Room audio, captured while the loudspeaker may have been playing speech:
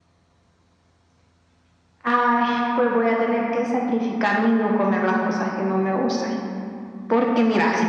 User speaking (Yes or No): No